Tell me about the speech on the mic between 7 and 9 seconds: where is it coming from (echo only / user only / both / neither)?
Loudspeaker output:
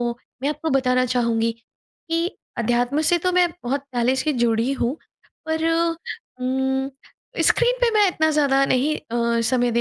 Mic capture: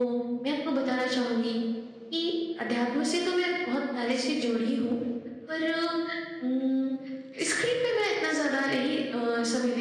echo only